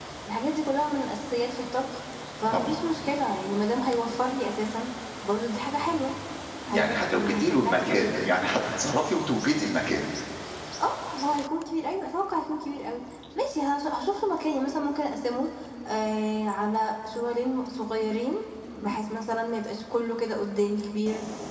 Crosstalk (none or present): present